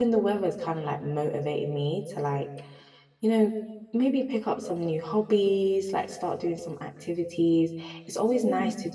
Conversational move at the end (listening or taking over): listening